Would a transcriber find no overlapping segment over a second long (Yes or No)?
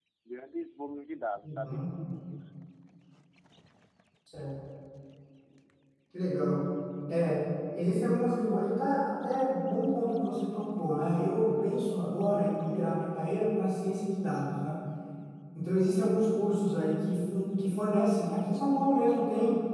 Yes